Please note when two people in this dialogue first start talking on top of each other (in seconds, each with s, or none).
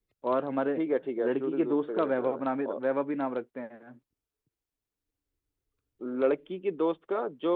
1.3 s